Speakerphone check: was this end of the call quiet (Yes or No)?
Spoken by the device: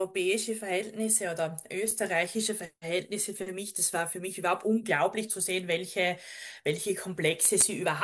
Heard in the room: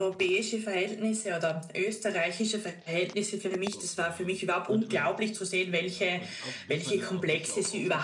No